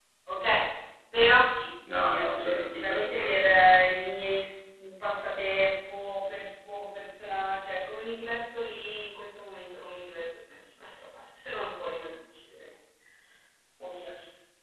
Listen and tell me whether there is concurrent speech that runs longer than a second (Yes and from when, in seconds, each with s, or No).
Yes, from 1.9 s